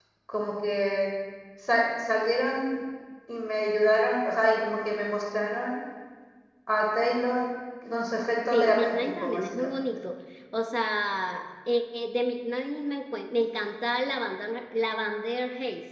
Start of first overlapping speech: 8.5 s

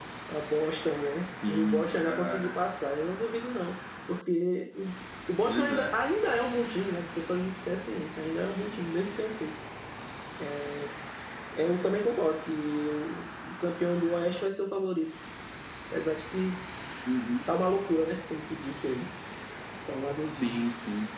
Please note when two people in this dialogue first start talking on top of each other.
1.2 s

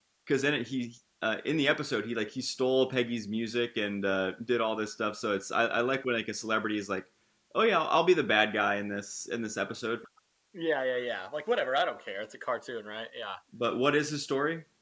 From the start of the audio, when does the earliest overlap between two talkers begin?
none

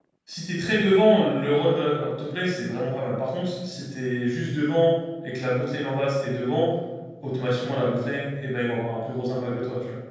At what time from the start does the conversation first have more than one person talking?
none

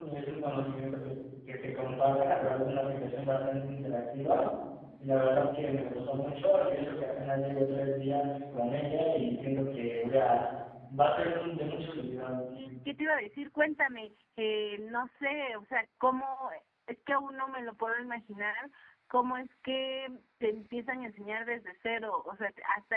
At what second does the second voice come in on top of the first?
none

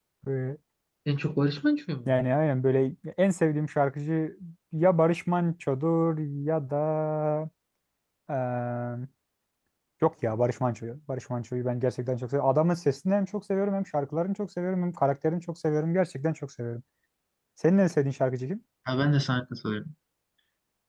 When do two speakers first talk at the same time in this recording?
none

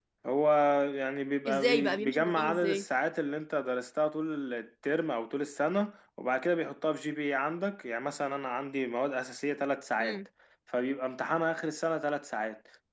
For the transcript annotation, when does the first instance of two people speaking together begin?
1.5 s

